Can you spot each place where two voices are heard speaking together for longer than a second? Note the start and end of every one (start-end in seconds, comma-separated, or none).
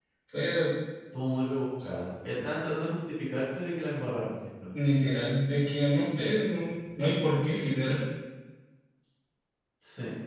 none